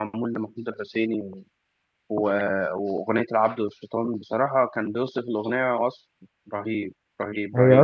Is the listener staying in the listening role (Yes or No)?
No